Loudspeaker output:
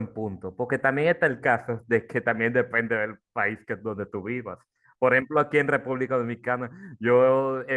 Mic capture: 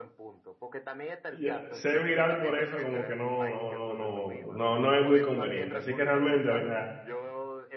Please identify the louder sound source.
user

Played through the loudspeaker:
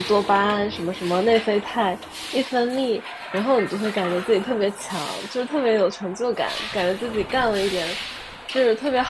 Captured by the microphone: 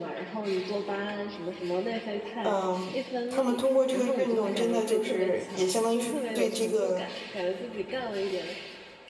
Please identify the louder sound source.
user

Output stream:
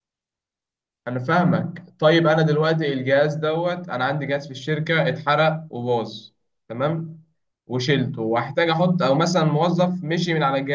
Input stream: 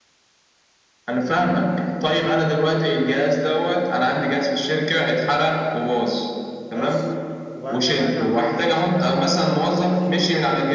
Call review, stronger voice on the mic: echo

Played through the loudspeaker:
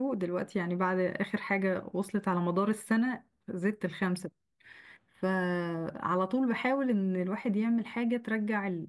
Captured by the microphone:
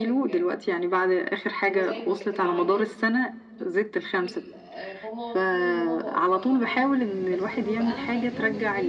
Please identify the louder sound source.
echo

